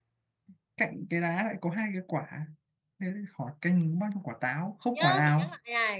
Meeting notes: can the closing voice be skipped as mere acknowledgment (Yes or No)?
No